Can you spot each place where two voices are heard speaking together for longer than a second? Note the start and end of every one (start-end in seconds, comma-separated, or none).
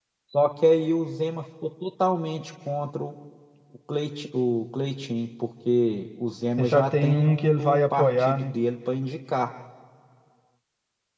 6.6-8.5